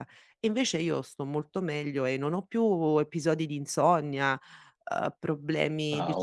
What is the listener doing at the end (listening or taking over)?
listening